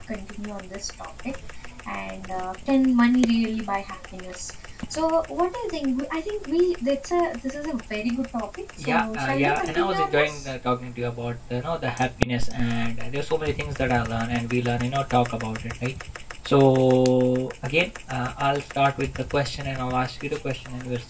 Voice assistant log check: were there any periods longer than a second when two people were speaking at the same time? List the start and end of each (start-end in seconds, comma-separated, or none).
8.8-10.5